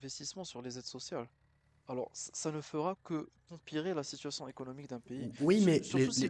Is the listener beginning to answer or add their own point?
Yes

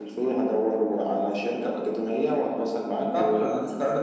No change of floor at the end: No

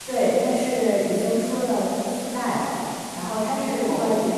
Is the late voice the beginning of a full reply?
No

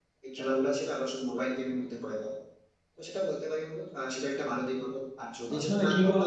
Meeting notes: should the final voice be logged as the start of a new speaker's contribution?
Yes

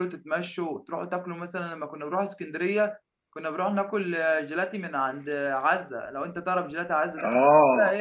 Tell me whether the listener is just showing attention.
No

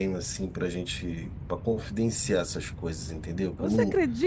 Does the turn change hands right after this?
Yes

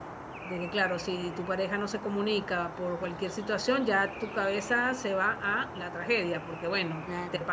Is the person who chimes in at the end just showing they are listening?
No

